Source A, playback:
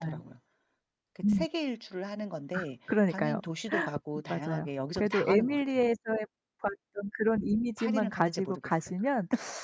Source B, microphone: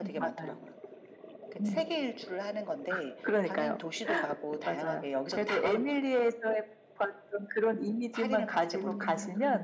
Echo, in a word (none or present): present